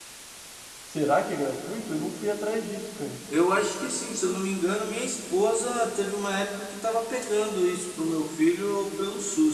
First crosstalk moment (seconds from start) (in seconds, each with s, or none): none